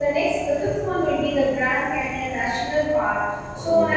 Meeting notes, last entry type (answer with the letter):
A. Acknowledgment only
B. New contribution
A